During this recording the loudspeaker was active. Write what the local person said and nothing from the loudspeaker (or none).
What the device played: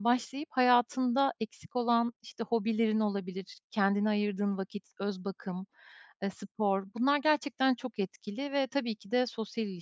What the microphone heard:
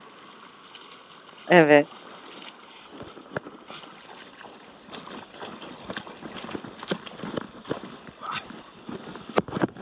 Evet.